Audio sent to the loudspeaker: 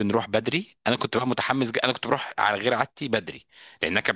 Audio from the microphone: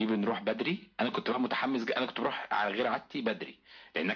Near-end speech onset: none

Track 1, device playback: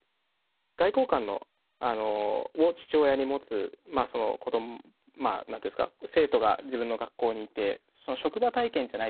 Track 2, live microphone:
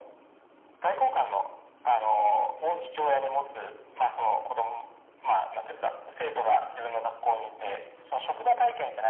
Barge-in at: none

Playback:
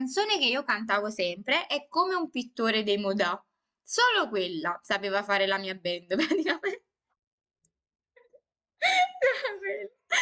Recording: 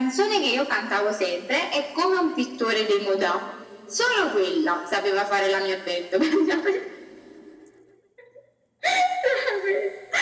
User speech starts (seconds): none

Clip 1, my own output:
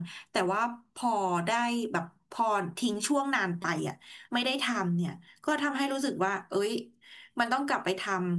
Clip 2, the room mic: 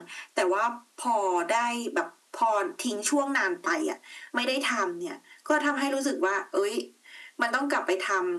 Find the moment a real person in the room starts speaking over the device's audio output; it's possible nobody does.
none

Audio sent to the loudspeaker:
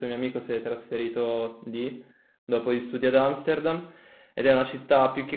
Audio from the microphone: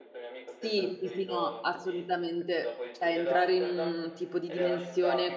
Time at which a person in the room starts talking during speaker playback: 0 s

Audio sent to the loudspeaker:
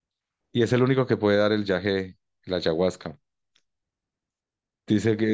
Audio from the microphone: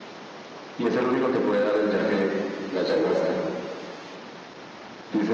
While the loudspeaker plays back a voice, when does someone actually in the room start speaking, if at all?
none

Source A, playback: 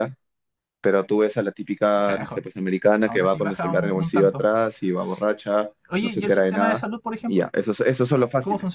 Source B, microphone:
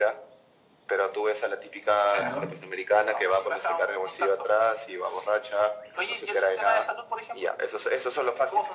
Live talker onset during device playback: 2 s

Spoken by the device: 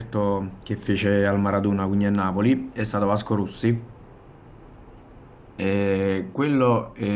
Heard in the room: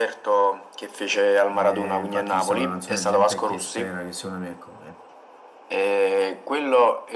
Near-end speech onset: 2 s

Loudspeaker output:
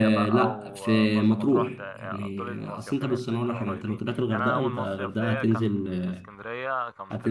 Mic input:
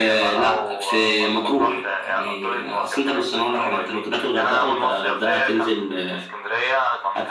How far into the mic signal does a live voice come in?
none

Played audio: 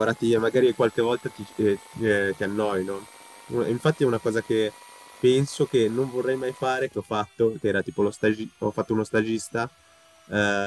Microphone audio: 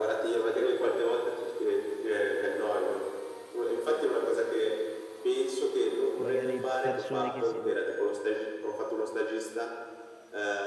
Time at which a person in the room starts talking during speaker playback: 6 s

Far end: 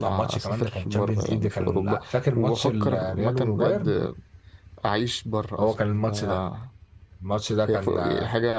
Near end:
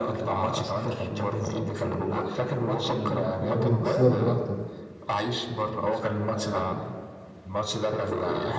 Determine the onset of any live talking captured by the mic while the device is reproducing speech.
4 s

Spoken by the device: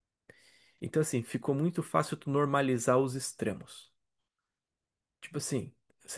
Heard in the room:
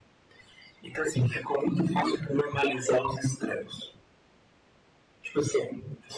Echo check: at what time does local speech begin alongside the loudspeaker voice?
none

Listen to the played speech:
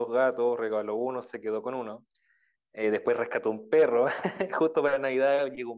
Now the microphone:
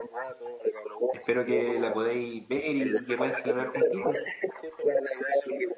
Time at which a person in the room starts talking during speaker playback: 1 s

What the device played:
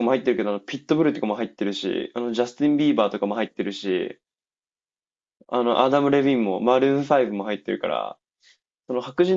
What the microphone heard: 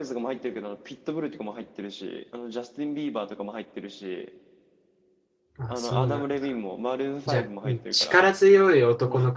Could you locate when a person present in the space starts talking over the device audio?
6 s

